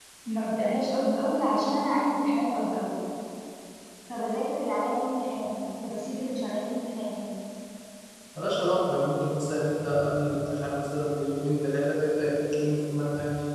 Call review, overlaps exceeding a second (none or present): none